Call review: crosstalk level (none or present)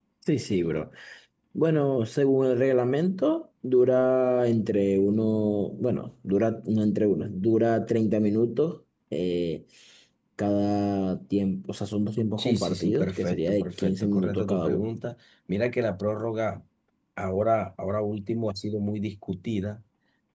present